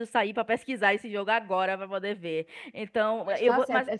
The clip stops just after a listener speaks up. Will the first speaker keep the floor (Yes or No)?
No